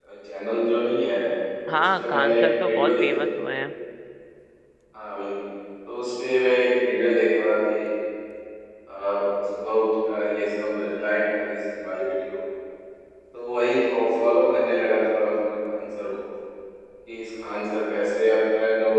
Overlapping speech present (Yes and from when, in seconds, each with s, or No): Yes, from 1.7 s